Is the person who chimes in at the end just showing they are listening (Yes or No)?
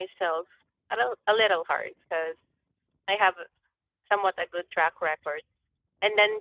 Yes